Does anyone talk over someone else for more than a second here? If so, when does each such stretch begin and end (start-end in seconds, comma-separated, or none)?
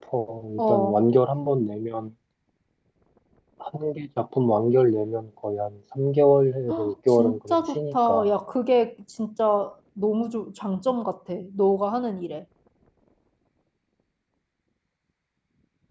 6.7-8.2